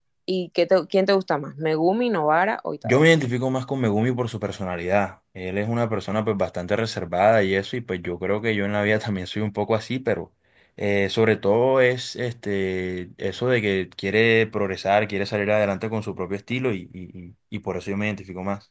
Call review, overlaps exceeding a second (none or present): none